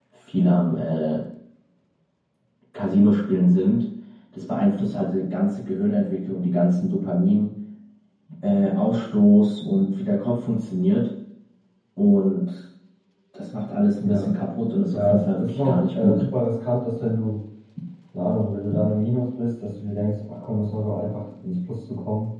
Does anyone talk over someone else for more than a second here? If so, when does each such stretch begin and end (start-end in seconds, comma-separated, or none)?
14.9-16.3